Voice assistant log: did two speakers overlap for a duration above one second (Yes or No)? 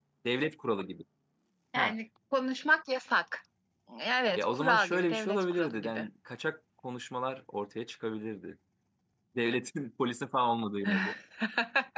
Yes